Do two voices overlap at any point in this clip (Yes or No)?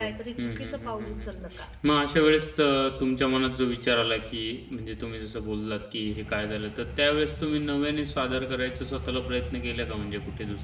Yes